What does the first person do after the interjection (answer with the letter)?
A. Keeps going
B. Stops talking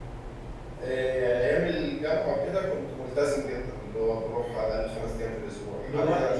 A